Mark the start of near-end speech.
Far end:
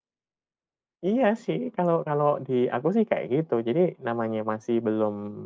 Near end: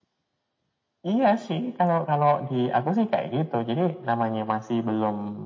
none

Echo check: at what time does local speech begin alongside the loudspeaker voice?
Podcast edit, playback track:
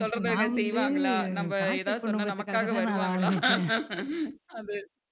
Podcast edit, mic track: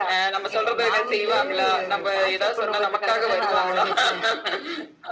none

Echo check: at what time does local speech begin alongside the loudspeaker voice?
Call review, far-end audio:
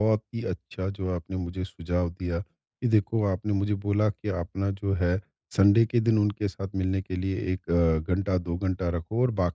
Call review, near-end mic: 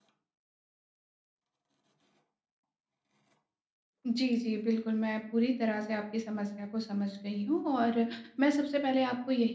4.0 s

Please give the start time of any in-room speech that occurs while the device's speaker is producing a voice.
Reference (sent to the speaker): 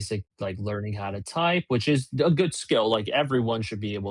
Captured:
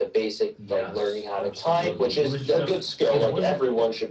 0.6 s

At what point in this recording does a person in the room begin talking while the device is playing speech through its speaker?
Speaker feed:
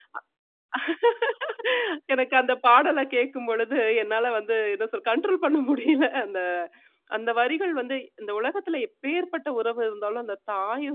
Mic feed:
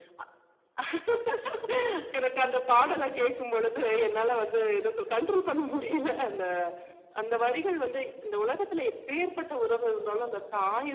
none

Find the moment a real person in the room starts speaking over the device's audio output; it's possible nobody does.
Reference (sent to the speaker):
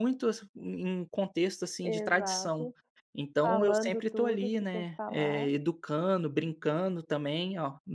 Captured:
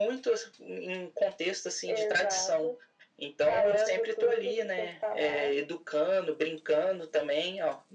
none

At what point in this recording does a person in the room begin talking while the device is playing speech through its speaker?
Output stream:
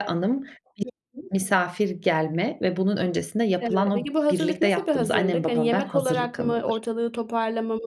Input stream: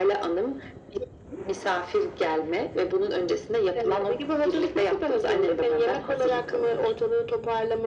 none

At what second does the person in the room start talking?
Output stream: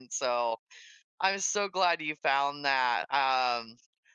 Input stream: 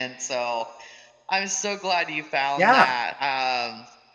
2.6 s

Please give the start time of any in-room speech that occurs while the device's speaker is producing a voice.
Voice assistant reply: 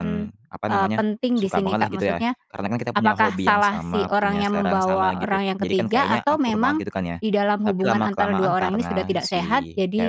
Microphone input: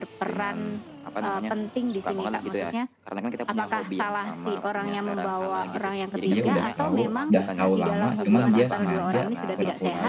6.2 s

